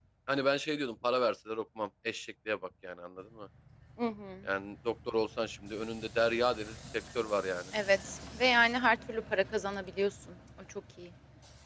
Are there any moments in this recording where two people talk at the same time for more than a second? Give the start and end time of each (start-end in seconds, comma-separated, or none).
none